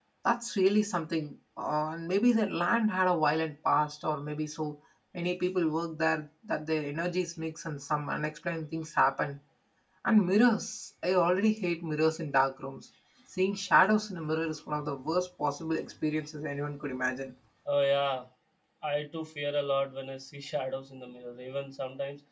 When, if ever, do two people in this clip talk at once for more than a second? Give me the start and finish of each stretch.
none

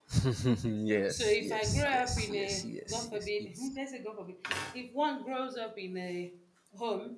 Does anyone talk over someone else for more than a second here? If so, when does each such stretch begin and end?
1.1-3.8

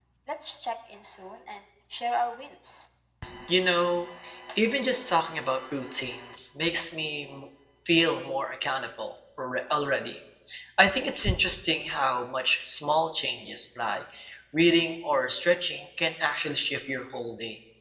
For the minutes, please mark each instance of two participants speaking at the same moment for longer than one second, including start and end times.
none

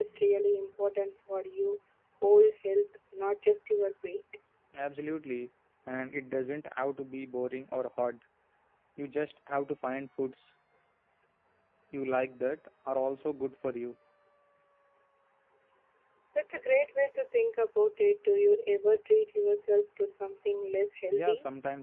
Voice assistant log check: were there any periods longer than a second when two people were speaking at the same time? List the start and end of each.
none

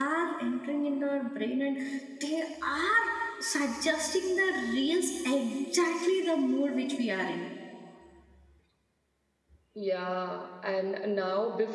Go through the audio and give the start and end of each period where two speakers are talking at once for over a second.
none

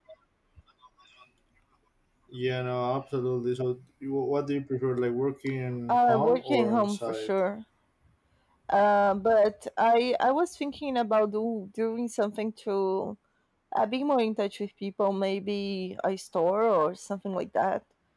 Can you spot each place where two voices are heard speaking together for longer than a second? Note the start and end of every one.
5.9-7.3

